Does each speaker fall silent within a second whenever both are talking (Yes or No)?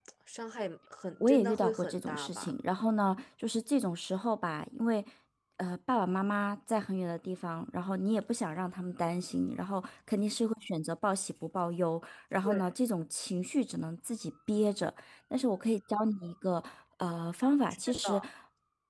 No